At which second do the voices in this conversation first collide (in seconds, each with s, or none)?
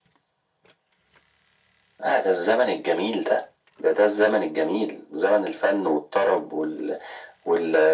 none